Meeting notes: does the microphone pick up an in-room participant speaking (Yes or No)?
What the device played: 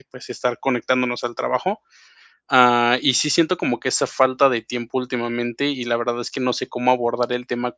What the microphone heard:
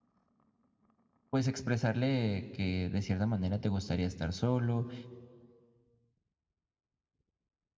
Yes